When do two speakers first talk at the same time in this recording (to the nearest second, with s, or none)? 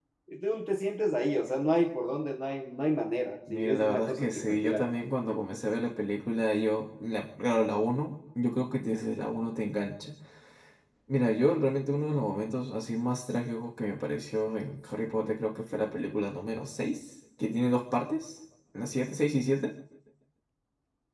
3 s